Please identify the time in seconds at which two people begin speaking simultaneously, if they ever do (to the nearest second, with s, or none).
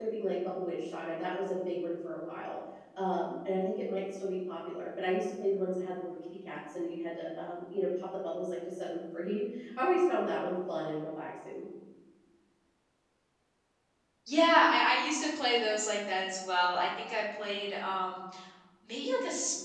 none